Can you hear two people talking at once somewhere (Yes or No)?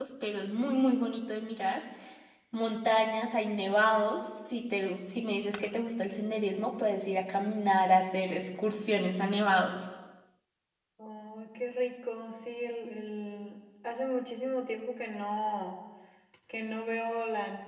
No